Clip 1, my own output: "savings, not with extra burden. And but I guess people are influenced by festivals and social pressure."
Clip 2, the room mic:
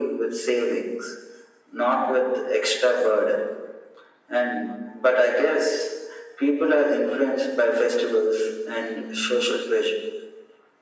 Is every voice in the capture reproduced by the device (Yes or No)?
Yes